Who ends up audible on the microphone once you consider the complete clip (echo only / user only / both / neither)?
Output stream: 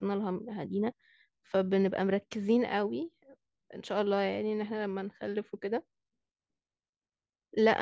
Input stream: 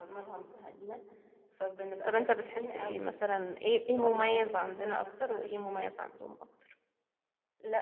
both